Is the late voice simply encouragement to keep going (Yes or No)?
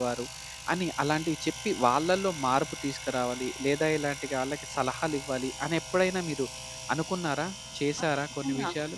No